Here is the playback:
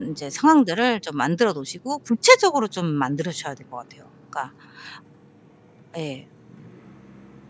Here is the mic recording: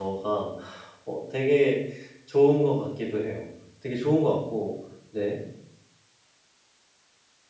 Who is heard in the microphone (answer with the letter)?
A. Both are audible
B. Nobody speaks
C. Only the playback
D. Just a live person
D